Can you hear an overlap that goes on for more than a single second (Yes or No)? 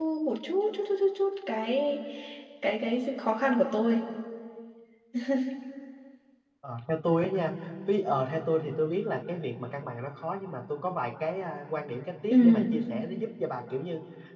No